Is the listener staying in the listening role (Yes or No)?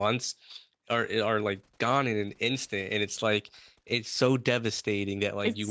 Yes